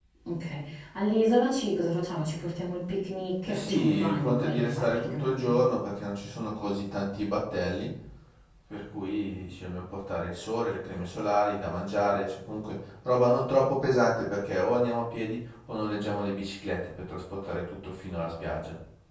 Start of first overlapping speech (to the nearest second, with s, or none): 3 s